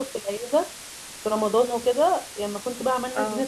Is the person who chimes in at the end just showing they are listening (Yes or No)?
Yes